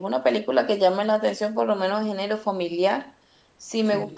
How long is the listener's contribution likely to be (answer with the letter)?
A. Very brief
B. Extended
A